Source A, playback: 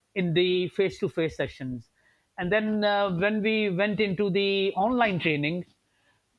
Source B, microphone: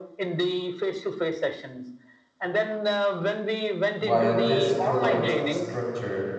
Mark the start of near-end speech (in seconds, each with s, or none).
4.0 s